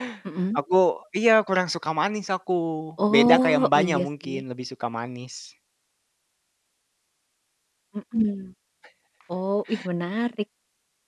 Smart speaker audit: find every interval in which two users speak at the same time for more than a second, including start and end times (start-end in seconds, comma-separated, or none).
3.1-4.4